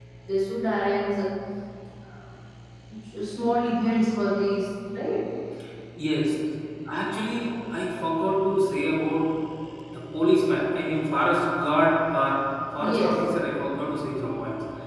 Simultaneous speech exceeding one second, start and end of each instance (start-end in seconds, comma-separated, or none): none